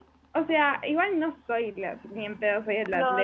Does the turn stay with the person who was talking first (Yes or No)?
No